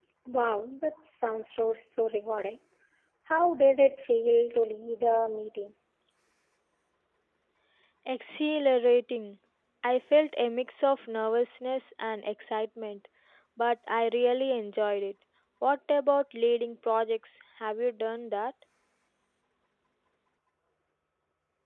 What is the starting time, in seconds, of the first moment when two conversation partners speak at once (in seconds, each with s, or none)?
none